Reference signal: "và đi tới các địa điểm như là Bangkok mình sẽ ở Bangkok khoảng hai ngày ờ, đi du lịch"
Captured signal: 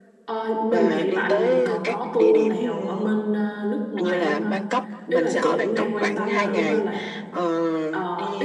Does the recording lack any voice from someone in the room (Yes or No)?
No